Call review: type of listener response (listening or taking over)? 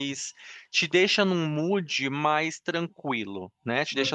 listening